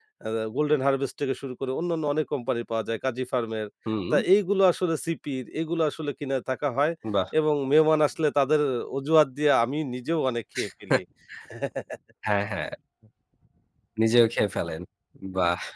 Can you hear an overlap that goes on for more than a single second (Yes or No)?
No